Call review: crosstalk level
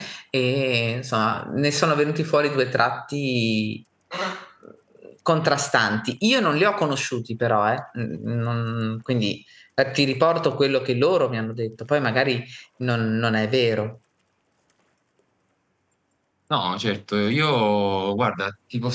none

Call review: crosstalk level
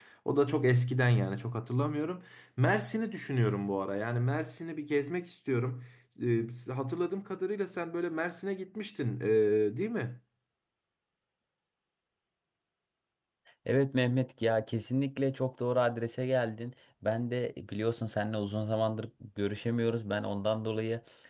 none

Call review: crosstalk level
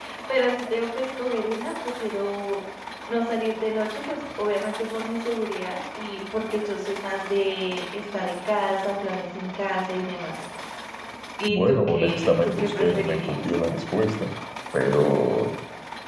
present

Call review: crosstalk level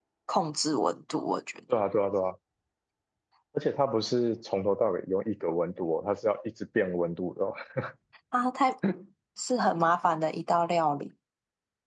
none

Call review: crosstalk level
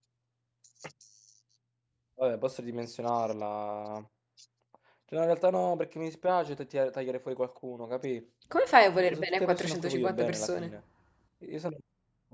present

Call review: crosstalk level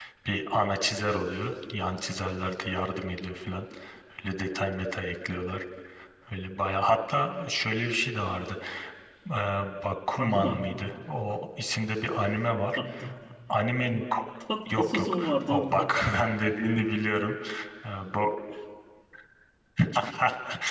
present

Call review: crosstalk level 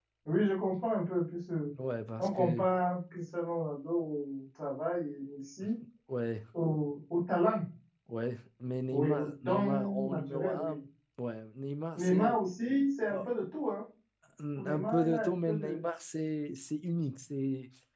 present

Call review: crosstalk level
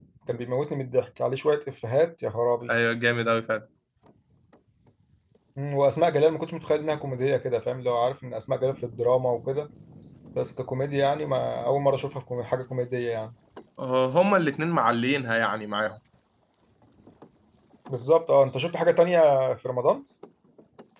none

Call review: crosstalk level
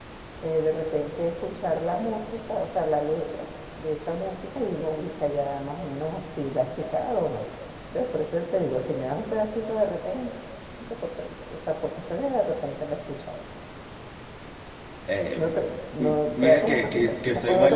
present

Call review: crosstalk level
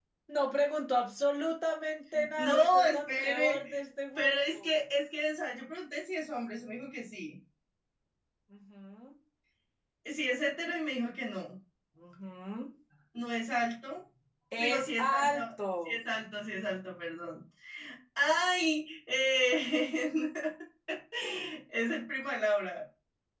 present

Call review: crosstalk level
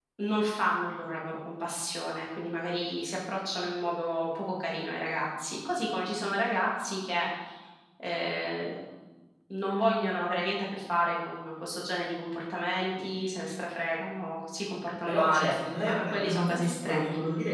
present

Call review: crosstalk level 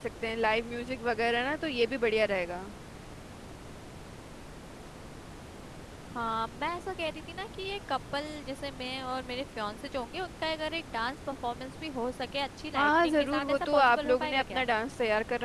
present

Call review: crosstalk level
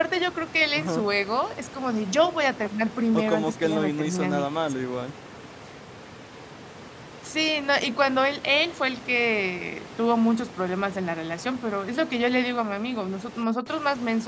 present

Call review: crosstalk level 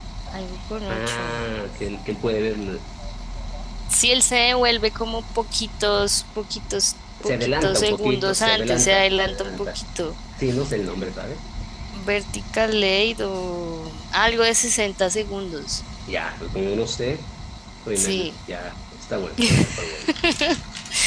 present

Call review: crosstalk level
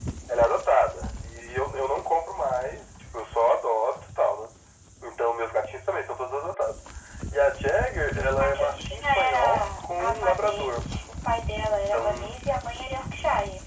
present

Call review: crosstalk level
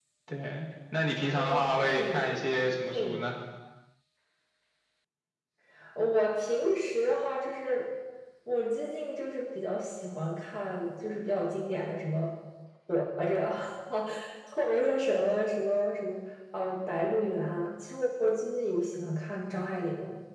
present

